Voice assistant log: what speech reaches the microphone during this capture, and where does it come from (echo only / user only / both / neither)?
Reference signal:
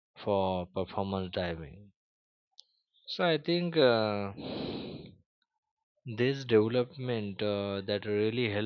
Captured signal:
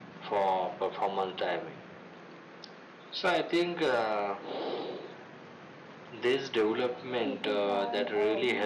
both